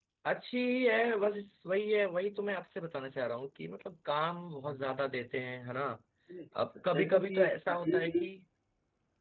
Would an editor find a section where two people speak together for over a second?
Yes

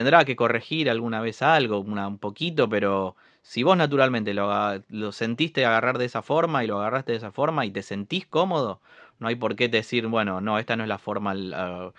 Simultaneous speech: No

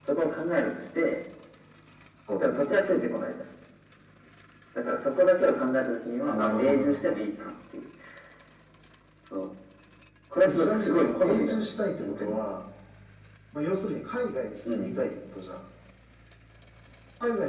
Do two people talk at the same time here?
Yes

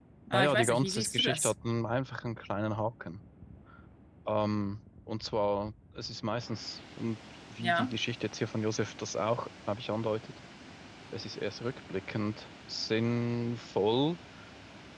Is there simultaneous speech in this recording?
Yes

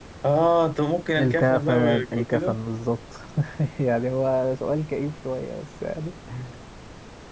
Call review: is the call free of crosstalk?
No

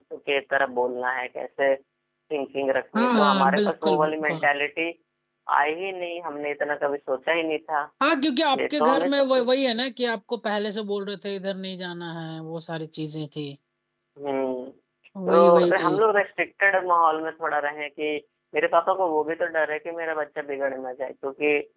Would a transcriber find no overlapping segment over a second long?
No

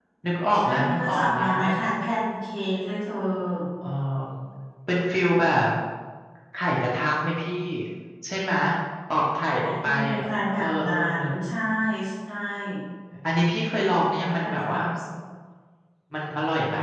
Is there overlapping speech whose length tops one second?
Yes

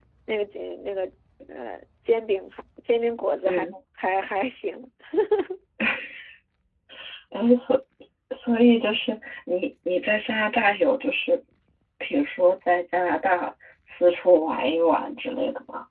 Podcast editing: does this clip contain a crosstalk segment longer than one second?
No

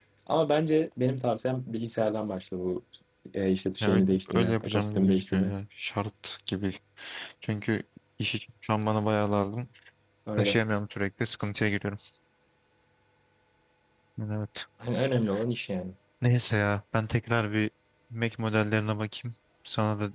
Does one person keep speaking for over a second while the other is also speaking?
Yes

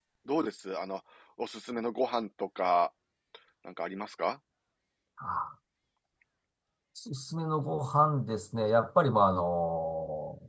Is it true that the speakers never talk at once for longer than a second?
Yes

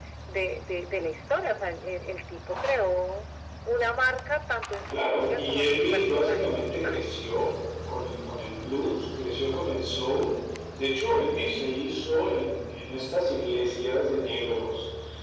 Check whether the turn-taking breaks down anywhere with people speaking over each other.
Yes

